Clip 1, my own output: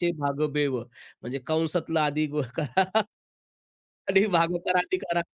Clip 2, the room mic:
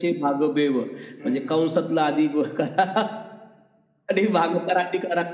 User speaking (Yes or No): Yes